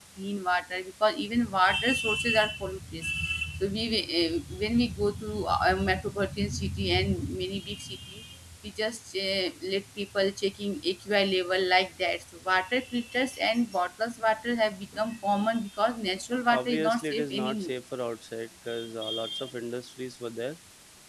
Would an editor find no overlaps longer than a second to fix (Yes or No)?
No